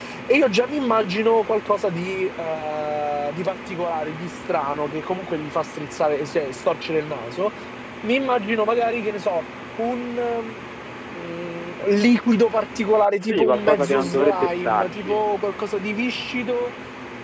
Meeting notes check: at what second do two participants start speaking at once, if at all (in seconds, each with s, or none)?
13.2 s